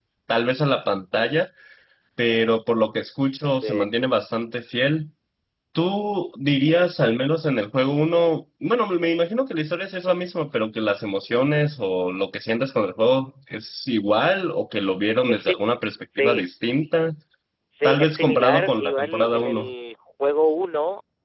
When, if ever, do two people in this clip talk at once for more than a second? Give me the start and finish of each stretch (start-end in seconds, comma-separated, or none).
17.8-19.7